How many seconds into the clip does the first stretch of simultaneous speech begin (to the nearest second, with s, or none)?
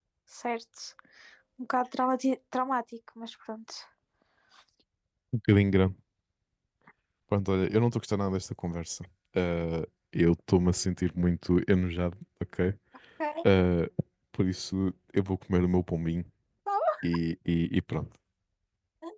none